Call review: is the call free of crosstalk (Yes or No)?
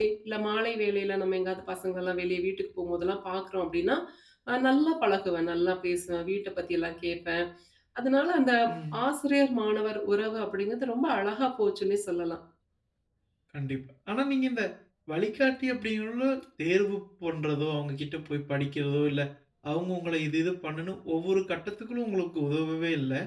Yes